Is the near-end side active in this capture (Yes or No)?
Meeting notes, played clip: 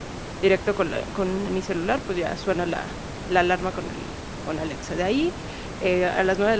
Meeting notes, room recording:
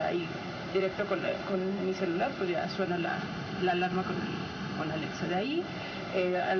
No